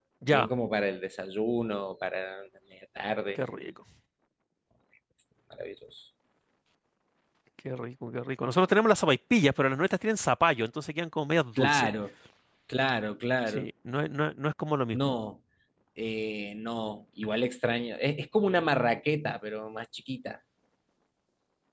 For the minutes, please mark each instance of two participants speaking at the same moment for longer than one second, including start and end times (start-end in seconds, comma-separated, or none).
none